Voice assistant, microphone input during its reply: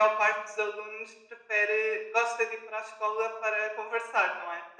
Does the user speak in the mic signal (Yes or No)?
No